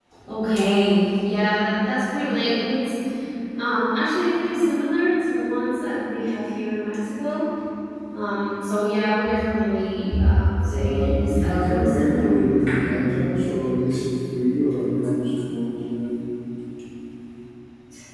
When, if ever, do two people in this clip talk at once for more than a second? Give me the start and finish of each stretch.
10.7-12.4

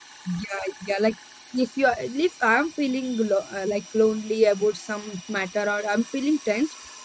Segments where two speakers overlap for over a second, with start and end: none

